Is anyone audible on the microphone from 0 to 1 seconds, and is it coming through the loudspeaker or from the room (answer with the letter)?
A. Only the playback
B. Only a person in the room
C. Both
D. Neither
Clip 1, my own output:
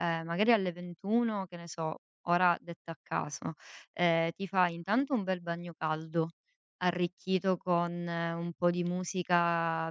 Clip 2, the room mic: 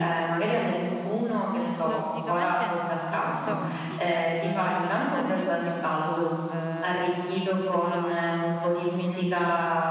A